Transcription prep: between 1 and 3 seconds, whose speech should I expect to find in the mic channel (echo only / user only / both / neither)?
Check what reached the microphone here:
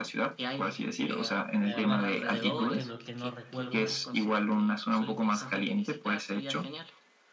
both